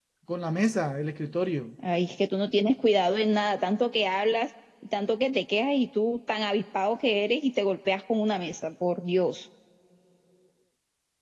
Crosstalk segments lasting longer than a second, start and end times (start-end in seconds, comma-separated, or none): none